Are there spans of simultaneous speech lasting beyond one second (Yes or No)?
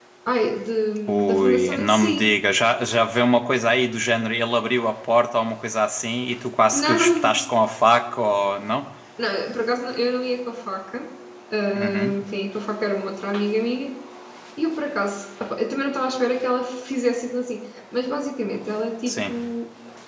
Yes